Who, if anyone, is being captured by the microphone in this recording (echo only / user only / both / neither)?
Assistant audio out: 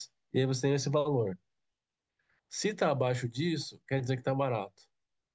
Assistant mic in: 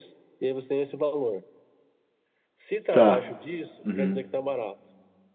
both